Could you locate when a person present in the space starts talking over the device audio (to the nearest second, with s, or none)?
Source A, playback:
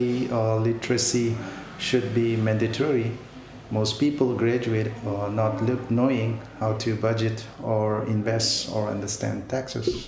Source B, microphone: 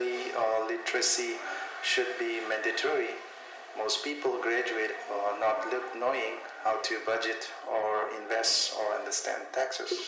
none